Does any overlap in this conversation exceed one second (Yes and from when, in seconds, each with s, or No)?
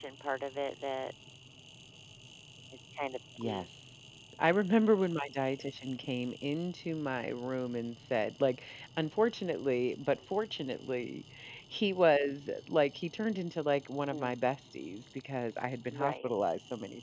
No